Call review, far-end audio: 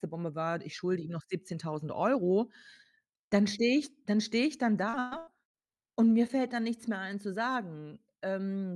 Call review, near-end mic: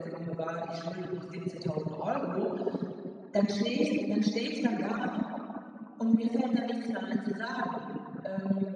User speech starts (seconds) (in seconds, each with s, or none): none